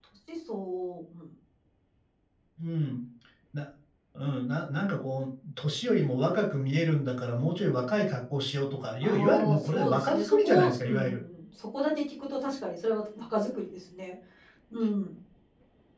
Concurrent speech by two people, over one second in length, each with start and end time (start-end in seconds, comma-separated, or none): 9.0-11.2